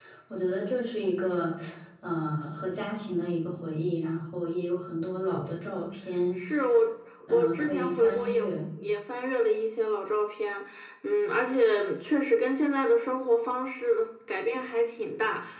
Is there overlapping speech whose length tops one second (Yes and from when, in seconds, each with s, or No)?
Yes, from 7.3 s